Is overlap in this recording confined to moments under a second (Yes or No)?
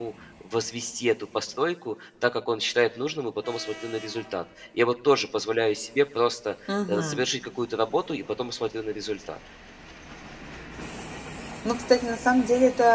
Yes